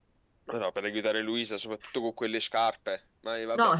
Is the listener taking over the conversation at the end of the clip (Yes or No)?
Yes